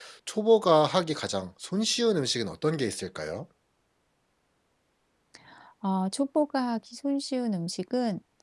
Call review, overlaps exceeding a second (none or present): none